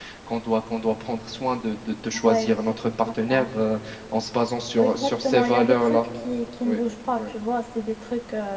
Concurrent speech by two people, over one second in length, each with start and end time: 4.8-6.0

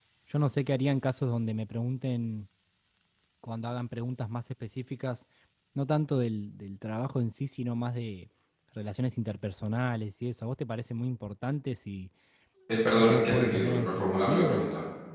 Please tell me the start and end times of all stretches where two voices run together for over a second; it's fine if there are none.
13.0-14.7

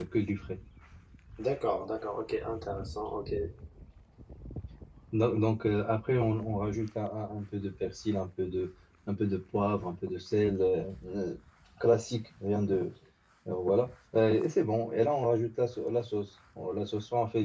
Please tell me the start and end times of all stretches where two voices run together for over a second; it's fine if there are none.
none

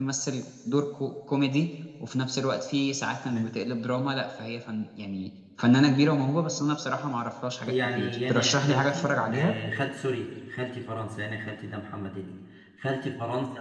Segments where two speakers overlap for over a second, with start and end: 7.6-9.5

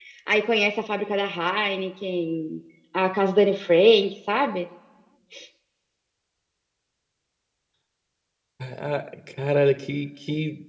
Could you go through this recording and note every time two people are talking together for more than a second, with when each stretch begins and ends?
none

